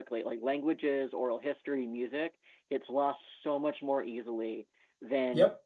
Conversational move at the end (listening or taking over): listening